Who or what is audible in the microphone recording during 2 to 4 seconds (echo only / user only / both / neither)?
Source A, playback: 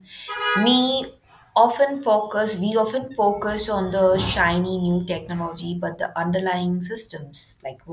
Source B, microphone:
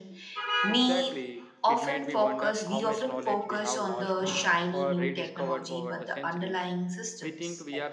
both